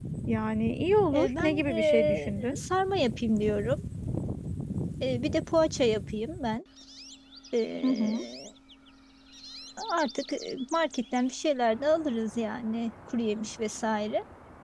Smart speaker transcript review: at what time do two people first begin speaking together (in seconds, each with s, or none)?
1.1 s